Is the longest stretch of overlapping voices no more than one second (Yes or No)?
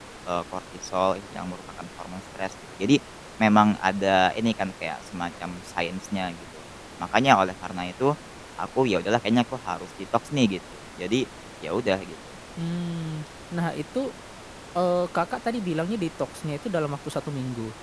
Yes